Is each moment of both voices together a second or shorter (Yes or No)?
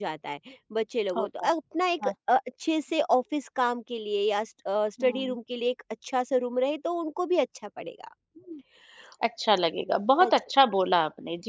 Yes